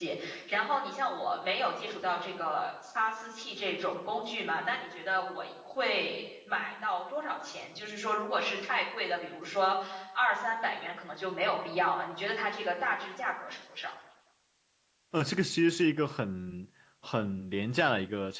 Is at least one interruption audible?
No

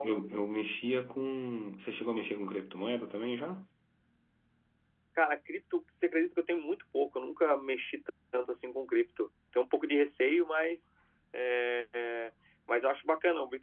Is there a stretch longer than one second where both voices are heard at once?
No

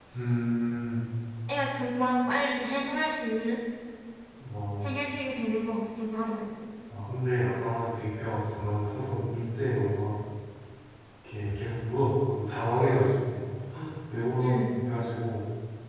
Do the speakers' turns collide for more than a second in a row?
No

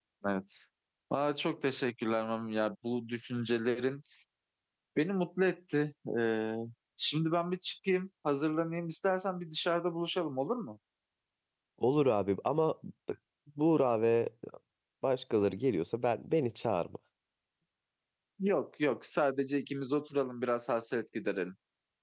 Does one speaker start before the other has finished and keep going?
No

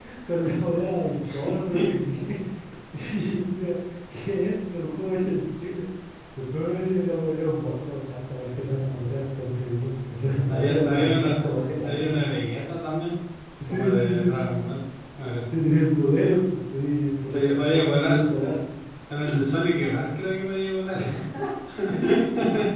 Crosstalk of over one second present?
Yes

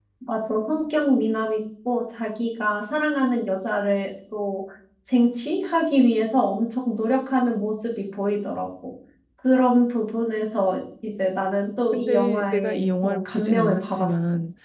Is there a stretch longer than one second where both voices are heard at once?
Yes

